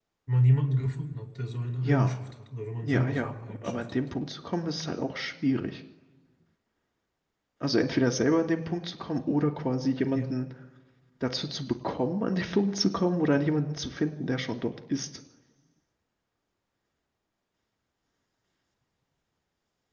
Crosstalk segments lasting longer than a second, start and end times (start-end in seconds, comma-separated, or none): 2.8-4.1